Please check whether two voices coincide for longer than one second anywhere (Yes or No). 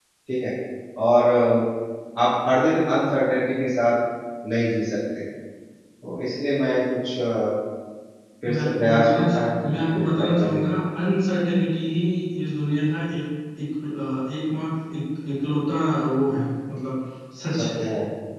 Yes